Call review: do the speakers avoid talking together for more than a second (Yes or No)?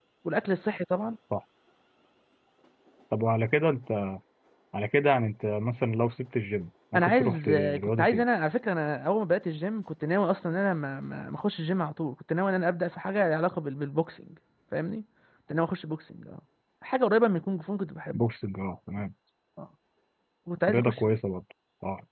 No